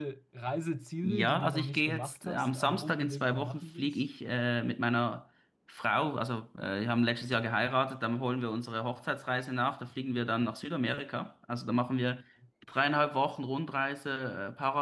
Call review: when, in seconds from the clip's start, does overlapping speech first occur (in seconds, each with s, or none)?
1.0 s